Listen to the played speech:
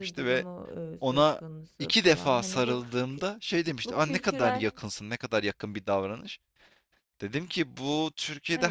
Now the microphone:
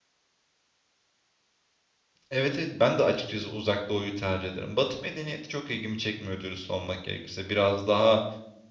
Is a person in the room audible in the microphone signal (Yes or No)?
Yes